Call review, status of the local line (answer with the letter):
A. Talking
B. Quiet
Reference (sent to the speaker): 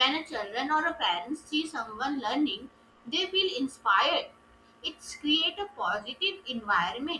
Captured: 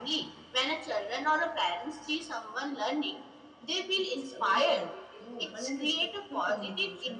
A